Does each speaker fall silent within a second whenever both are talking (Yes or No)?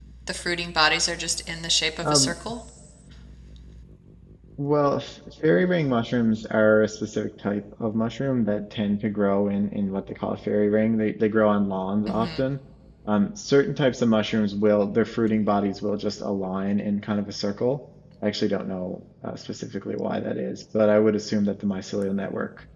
Yes